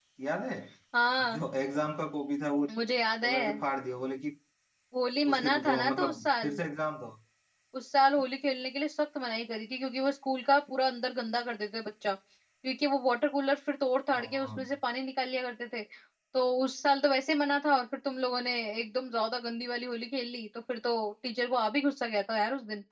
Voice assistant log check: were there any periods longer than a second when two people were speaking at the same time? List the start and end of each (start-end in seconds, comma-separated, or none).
5.3-6.6